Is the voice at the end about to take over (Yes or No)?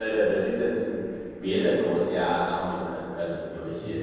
Yes